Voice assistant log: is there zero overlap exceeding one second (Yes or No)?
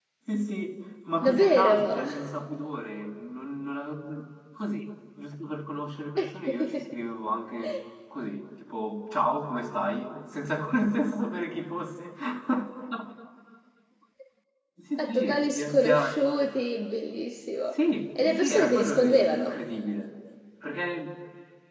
No